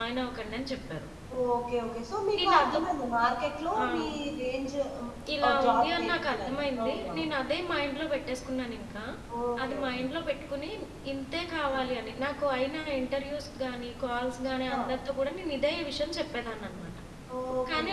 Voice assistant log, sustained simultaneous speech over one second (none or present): present